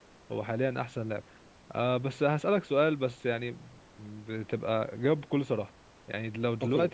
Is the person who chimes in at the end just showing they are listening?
Yes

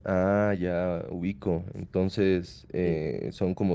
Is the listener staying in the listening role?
Yes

